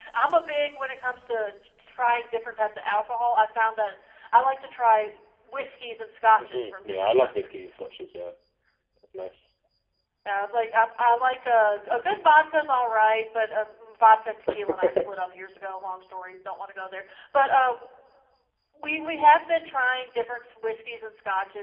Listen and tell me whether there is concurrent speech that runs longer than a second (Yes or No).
Yes